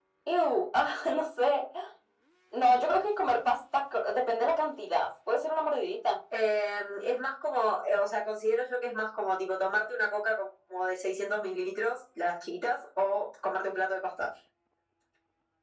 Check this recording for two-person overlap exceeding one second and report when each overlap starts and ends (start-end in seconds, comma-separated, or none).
none